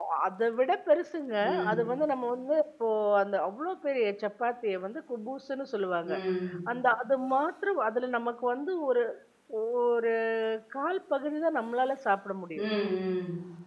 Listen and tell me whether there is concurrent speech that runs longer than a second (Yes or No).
No